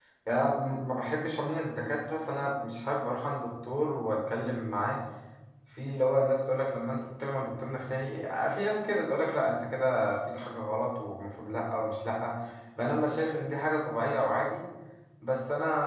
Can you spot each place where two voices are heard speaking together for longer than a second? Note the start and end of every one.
none

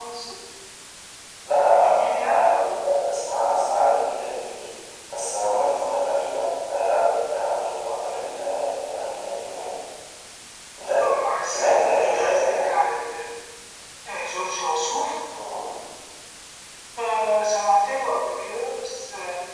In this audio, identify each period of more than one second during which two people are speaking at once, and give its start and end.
1.8-3.1, 11.5-12.7

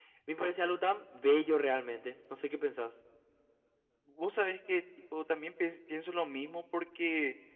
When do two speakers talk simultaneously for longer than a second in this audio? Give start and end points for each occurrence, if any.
none

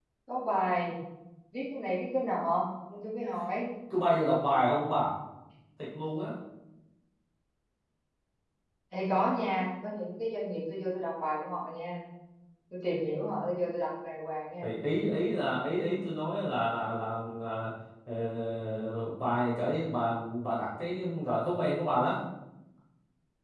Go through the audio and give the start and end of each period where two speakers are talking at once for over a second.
none

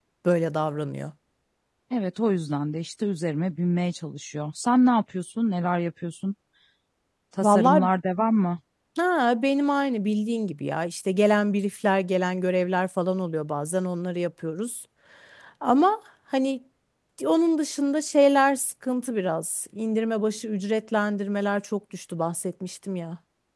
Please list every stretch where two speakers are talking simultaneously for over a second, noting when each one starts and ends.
none

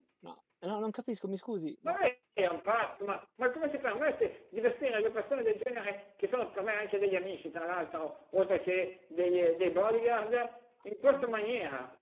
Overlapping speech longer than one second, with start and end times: none

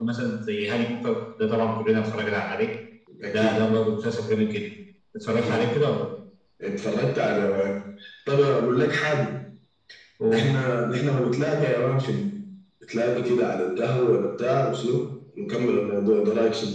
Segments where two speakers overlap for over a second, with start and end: none

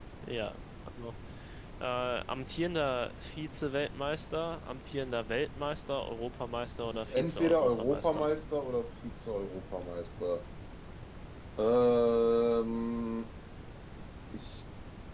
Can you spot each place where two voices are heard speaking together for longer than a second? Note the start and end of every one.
6.8-8.3

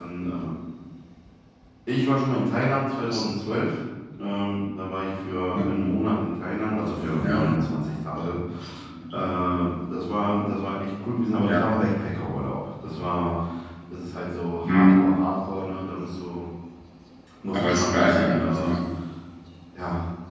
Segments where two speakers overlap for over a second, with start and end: 17.5-18.7

